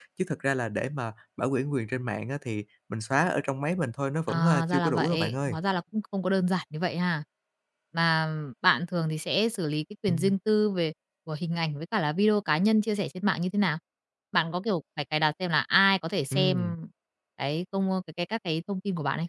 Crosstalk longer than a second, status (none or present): present